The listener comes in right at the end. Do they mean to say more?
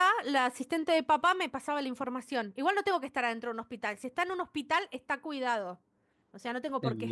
Yes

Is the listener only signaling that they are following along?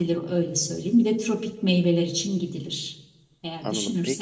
No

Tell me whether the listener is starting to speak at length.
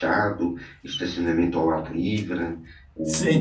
Yes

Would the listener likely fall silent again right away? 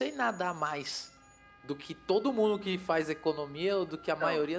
Yes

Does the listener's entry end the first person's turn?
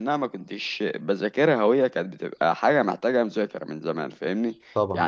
No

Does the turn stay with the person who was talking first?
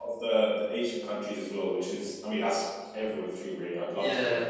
No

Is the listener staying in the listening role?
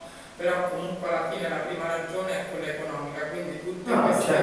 Yes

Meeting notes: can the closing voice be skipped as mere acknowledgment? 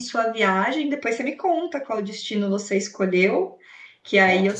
Yes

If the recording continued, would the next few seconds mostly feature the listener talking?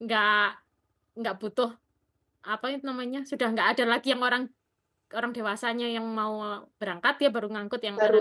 Yes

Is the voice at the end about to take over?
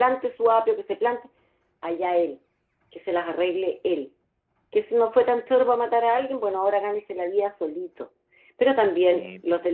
No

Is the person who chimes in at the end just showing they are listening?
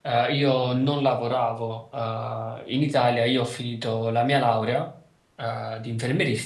Yes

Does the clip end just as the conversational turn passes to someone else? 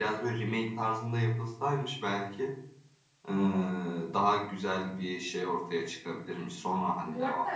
Yes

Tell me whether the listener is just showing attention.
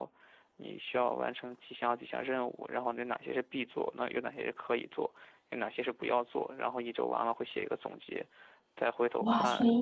No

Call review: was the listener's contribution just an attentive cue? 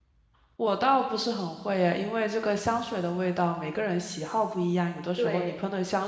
Yes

